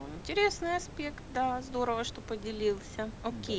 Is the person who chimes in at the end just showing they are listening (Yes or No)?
No